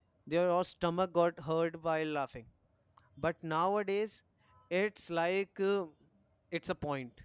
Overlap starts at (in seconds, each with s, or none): none